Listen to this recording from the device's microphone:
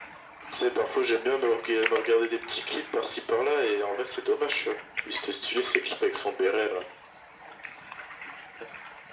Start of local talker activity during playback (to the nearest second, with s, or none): none